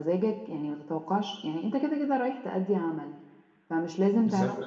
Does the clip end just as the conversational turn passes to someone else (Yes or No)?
No